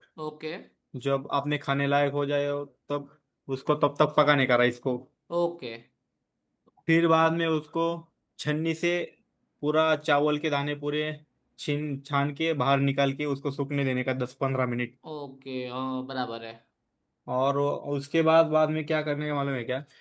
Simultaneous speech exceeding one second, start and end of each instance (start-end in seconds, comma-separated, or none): none